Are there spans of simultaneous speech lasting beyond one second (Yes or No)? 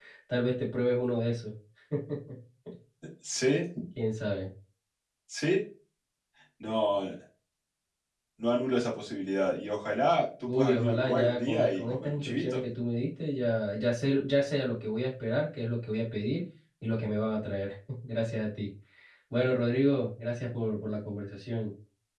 Yes